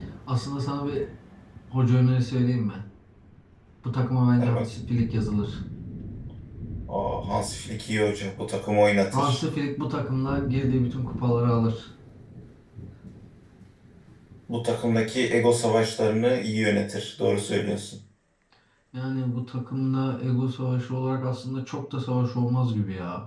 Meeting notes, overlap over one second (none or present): none